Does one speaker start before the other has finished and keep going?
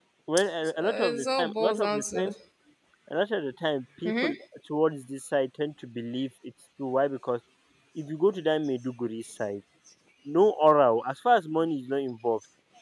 Yes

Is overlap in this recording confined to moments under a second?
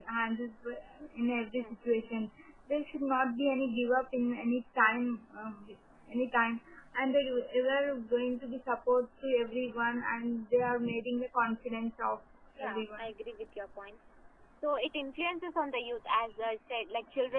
Yes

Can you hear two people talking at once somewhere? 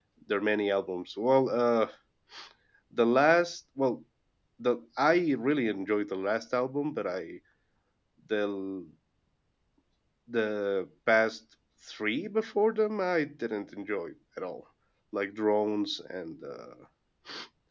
No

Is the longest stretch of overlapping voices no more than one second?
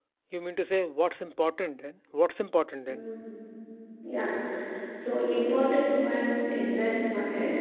Yes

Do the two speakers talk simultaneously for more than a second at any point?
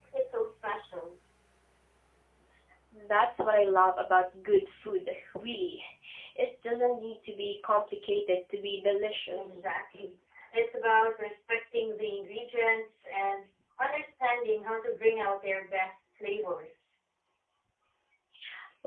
No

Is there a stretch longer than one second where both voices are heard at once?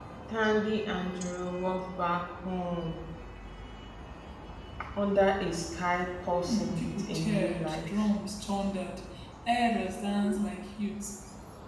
Yes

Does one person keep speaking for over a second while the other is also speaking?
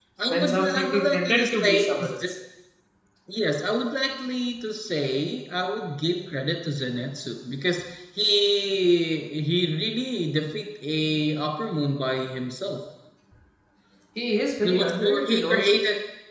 Yes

